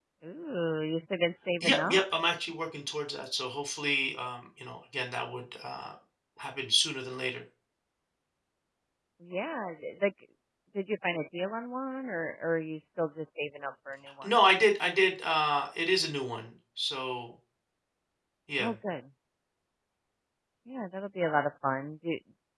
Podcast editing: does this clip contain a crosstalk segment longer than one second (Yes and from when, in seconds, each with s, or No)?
No